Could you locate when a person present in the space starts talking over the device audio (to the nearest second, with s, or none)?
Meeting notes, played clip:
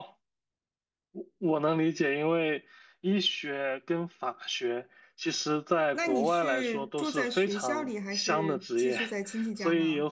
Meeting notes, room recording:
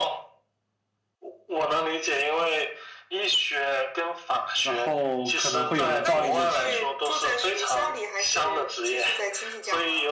5 s